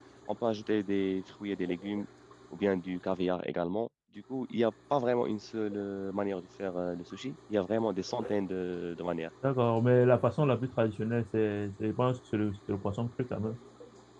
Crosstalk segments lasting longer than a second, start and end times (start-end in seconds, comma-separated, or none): none